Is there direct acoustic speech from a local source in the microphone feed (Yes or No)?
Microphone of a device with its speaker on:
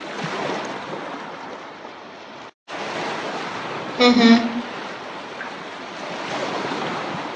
Yes